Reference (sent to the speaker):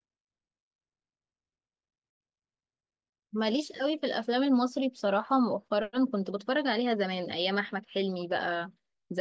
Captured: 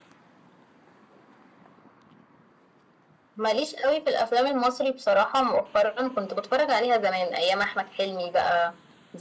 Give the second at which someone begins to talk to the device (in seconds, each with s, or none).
none